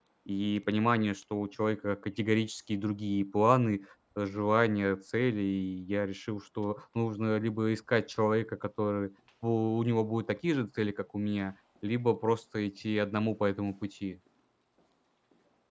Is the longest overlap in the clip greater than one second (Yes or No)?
No